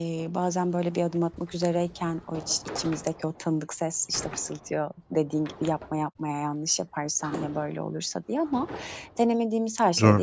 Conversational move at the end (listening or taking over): listening